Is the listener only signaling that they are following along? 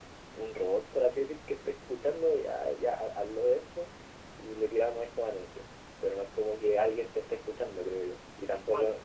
Yes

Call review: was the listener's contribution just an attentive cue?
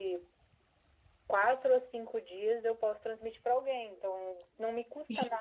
Yes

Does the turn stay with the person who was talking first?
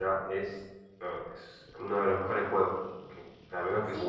No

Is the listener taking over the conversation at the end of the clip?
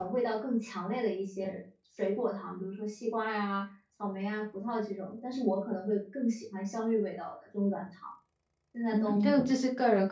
Yes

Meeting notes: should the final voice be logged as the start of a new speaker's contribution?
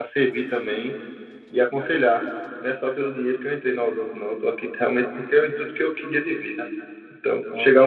No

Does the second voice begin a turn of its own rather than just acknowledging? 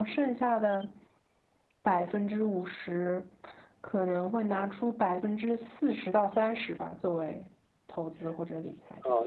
Yes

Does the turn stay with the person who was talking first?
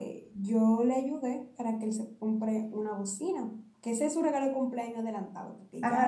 No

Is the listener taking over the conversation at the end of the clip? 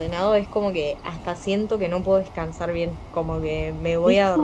No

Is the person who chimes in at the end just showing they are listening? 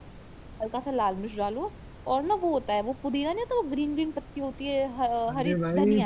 No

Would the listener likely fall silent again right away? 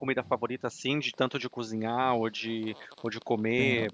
No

